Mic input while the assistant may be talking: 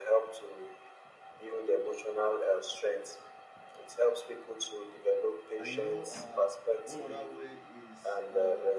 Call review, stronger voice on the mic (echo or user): echo